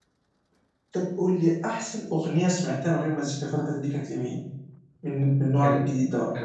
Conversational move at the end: taking over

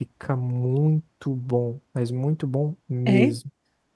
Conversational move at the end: listening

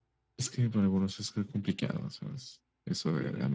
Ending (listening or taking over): taking over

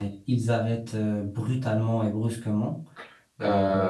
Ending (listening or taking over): taking over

